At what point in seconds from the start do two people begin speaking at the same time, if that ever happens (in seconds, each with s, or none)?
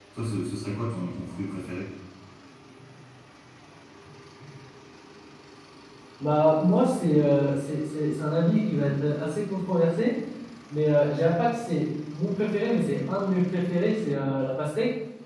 none